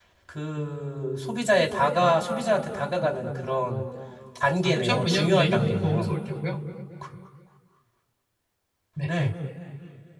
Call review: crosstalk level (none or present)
present